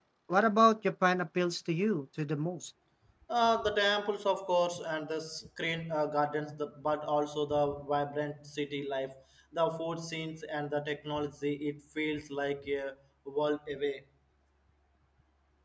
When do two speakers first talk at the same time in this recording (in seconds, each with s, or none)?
none